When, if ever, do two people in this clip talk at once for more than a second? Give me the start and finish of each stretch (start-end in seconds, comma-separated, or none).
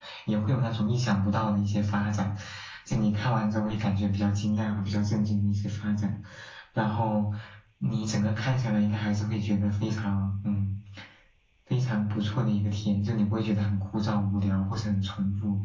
none